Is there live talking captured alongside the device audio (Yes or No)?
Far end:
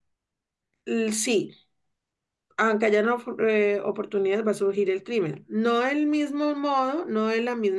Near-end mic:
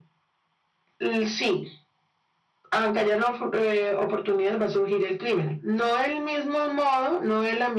No